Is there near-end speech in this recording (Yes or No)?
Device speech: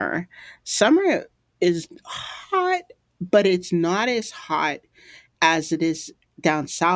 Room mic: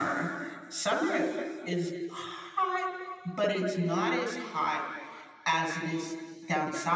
No